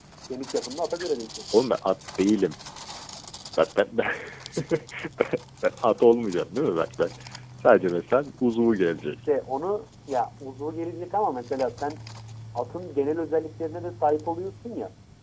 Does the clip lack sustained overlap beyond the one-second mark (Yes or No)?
Yes